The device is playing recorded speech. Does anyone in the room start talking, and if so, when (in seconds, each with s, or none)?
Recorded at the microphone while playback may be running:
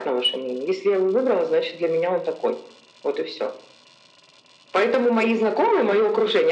none